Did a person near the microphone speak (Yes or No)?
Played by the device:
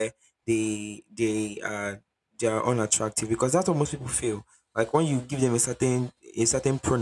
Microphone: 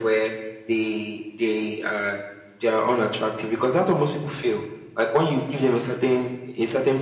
No